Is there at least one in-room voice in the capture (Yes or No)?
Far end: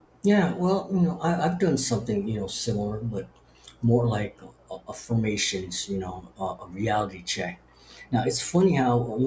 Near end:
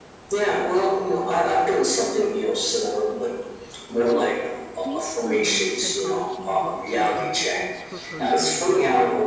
Yes